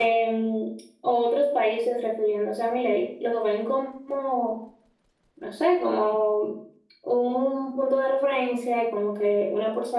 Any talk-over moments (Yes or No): No